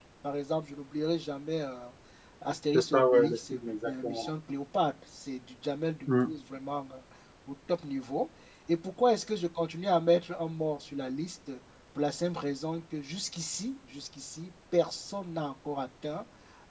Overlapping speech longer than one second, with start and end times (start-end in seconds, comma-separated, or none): 2.7-4.3